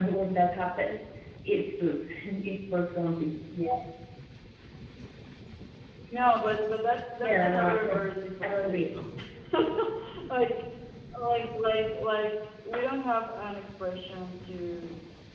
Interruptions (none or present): present